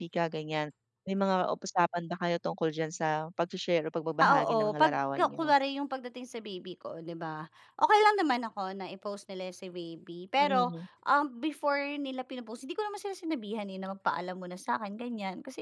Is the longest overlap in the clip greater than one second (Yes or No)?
Yes